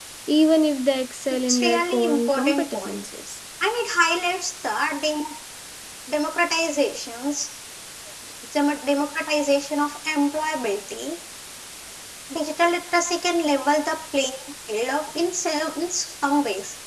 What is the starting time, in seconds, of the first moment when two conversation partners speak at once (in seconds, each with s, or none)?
1.5 s